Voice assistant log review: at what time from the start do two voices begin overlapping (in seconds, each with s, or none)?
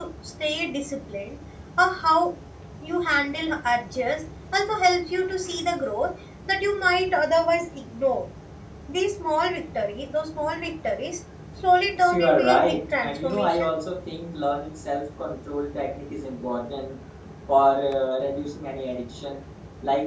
12.0 s